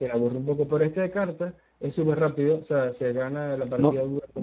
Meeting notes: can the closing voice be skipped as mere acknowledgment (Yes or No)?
Yes